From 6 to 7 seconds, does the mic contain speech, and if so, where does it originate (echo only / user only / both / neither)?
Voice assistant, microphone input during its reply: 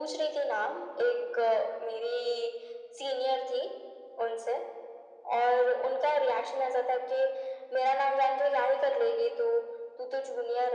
echo only